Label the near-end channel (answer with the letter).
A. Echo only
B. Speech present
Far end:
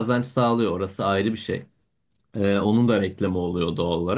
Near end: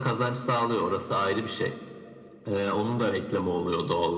A